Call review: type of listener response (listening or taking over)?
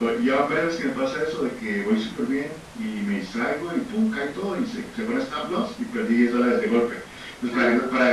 listening